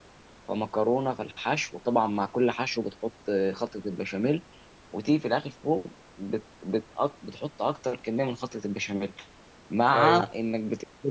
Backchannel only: Yes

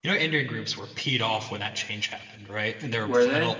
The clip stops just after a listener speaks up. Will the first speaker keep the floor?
Yes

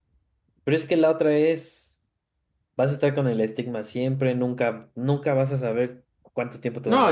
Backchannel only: No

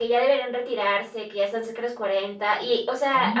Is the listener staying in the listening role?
Yes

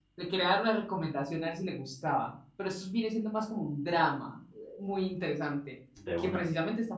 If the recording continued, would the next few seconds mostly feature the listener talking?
No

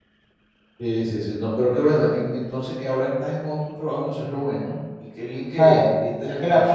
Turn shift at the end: Yes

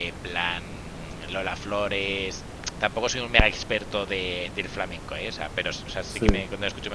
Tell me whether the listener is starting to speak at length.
No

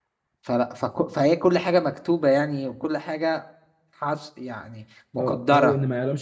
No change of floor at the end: No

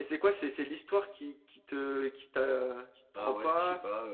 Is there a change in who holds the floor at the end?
Yes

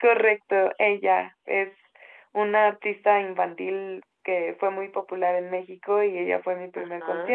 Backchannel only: Yes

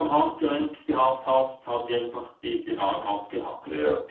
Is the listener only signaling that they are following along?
No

